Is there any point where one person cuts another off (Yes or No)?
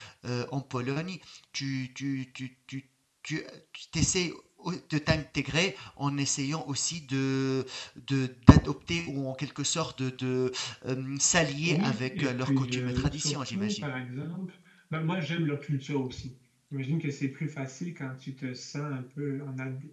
Yes